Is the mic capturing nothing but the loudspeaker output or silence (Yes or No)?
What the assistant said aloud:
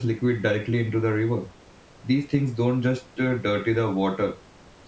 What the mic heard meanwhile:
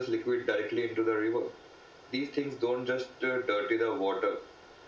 Yes